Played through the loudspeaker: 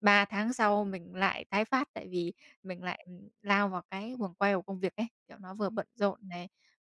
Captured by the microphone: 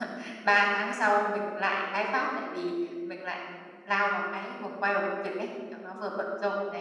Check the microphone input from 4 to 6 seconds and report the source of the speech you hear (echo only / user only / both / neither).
echo only